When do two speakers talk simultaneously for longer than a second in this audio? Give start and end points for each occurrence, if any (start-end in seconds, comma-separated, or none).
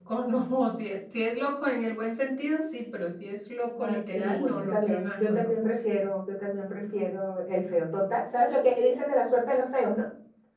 3.8-5.8